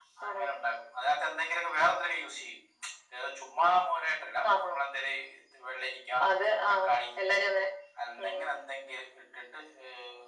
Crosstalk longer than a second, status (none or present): none